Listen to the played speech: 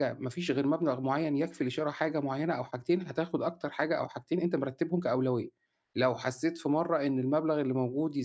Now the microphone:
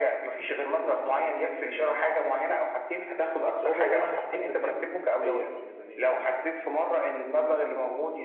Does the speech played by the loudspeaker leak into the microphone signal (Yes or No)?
Yes